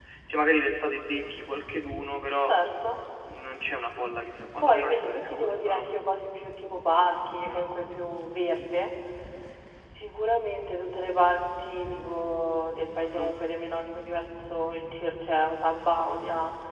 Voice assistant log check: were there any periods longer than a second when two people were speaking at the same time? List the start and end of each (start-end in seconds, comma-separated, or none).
4.6-5.9